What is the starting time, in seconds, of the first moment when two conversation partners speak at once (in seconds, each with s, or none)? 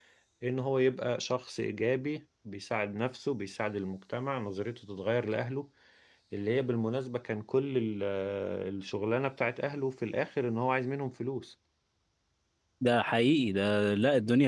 none